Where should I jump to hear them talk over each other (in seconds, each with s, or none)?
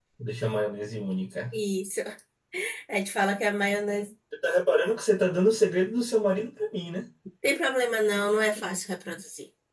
none